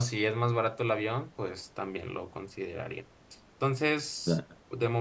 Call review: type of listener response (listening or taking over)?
listening